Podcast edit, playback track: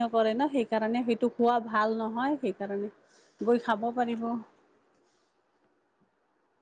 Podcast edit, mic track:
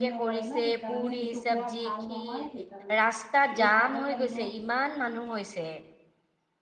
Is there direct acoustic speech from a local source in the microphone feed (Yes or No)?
Yes